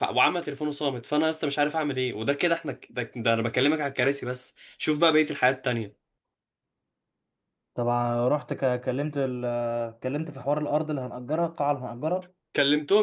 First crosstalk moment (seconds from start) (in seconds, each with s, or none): none